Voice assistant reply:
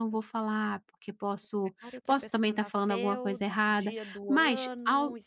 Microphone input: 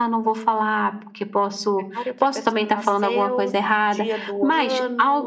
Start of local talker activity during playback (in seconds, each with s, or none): none